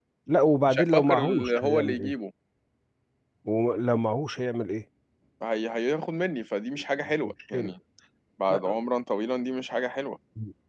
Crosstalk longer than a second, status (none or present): present